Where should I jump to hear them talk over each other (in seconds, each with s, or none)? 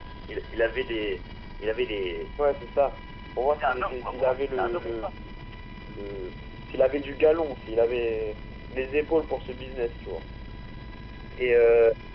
3.5 s